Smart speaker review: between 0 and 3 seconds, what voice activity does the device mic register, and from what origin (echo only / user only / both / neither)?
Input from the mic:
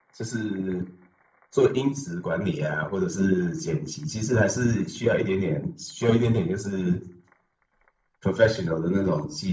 echo only